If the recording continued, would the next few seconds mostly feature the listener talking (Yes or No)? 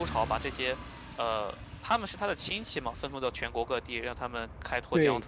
Yes